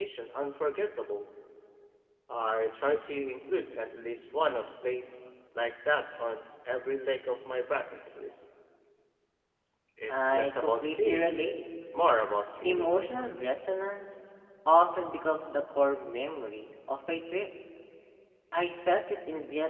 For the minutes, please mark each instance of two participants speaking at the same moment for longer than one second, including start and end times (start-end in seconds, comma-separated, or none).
10.1-11.3